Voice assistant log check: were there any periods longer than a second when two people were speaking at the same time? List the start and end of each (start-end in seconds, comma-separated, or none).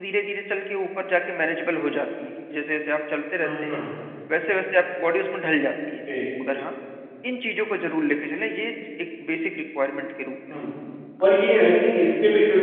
none